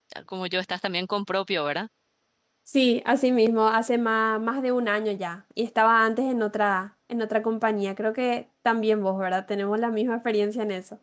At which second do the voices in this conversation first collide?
none

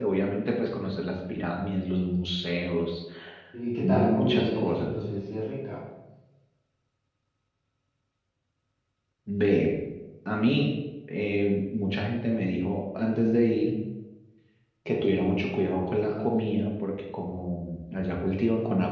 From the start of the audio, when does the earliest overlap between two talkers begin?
3.8 s

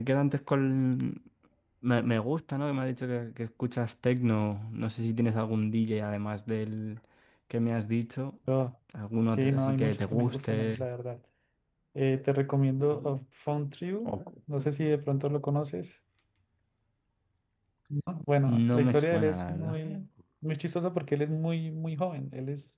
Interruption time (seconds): 9.4 s

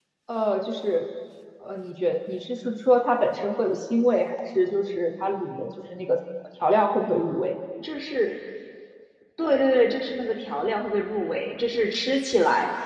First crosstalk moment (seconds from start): none

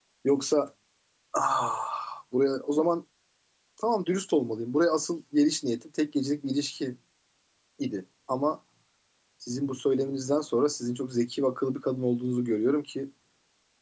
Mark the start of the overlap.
none

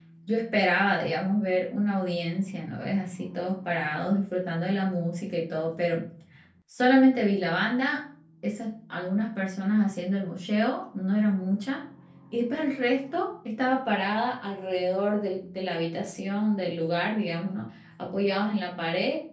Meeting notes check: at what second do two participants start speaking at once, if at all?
none

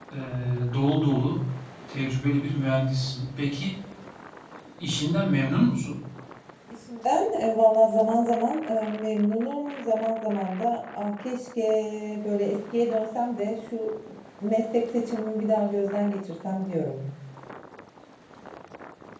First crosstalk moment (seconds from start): none

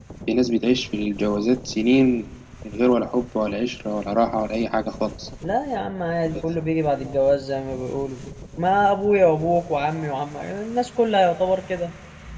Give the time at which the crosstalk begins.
none

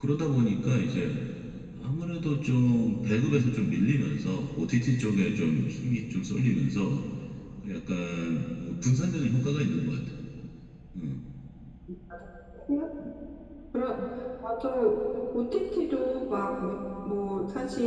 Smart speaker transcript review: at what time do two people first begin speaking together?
none

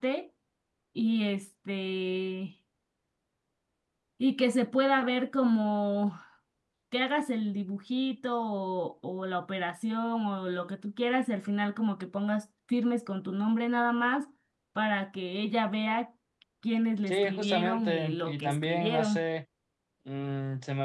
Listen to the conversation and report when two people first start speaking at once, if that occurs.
17.1 s

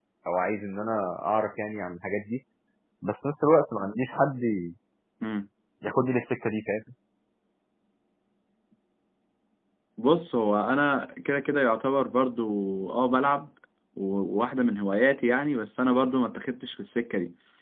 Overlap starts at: none

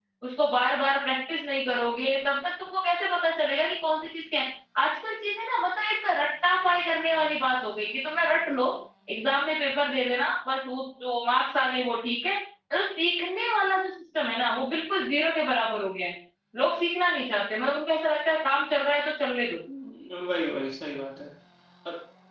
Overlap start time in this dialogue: none

